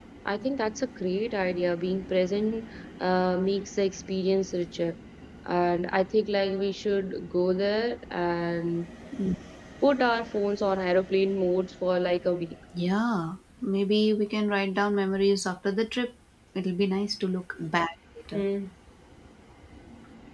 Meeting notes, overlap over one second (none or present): none